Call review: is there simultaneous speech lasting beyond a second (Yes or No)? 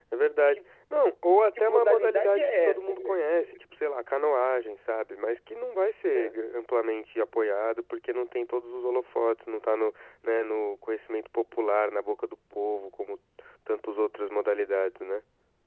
Yes